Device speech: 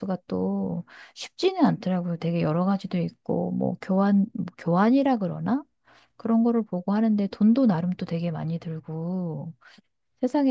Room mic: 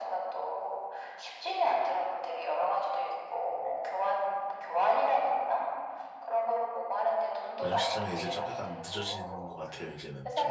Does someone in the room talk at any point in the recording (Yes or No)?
Yes